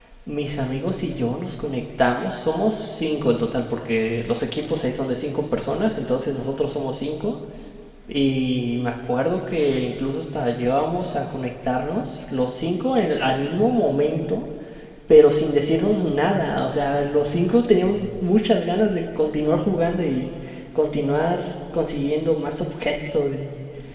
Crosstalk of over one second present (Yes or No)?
No